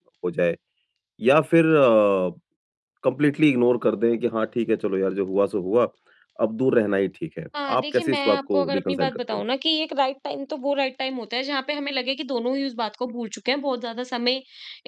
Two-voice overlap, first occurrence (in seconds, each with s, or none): 7.5 s